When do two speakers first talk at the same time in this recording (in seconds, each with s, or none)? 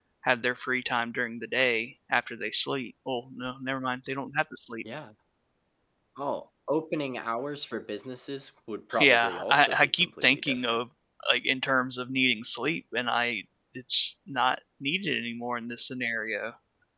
8.9 s